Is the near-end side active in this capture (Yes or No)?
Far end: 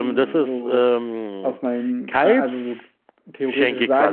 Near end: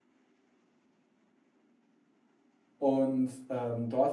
Yes